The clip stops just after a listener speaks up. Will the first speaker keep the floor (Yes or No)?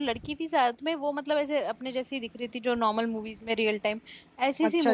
No